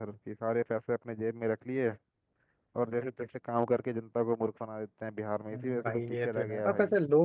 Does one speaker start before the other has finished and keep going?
Yes, from 5.5 s

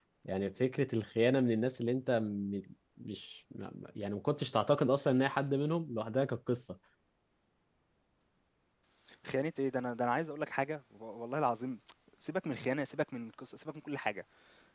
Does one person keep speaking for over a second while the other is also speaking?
No

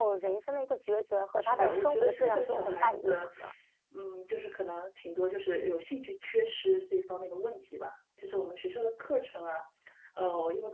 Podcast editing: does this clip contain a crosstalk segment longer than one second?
Yes, from 1.4 s

